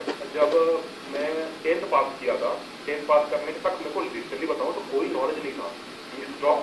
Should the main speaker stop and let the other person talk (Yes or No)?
No